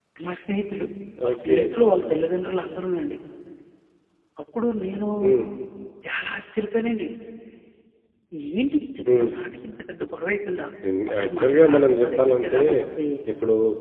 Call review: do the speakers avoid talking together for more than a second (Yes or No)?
No